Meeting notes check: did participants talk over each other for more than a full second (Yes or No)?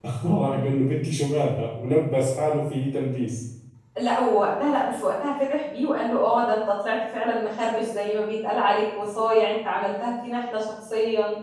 No